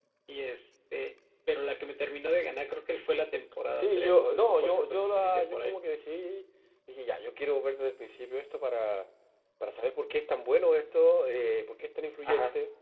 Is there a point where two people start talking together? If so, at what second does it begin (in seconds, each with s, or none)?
3.8 s